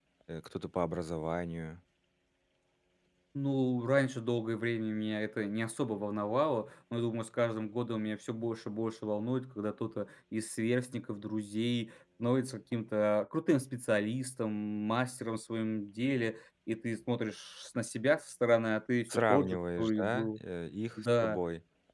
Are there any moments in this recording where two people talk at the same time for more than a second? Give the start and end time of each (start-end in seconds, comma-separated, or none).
19.1-20.4